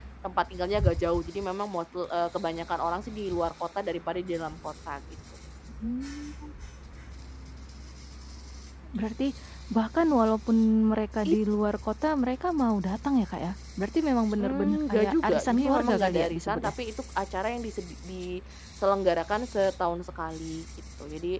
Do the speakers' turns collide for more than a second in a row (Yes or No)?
Yes